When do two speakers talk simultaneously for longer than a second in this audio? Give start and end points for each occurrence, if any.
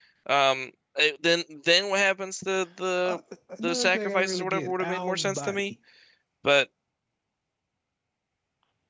3.6-5.6

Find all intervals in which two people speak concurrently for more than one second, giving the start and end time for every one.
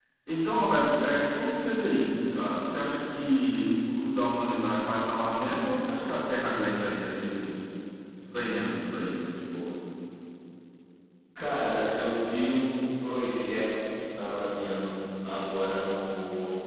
none

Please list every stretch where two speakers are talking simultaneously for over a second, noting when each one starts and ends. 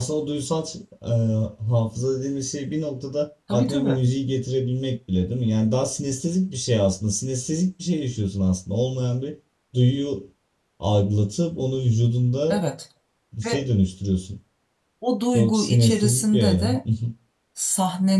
15.3-16.8

